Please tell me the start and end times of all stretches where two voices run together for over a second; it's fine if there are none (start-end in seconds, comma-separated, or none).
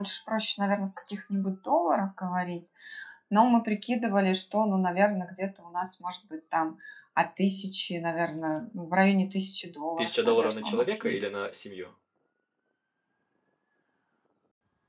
10.0-11.3